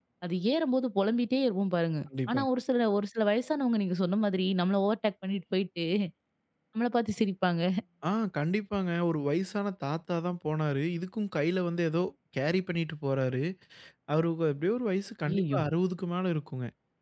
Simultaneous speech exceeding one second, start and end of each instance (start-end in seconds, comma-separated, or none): none